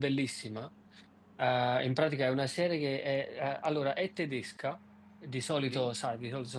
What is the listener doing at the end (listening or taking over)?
listening